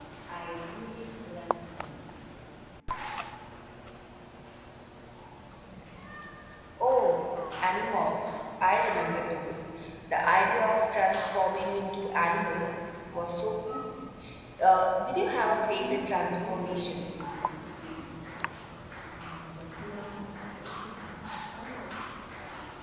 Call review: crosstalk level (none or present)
present